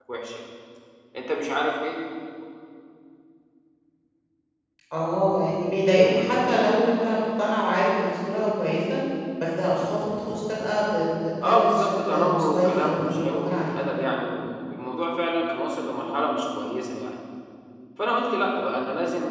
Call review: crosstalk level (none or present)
present